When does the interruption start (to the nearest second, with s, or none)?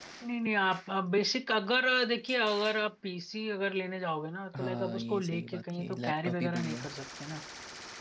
5 s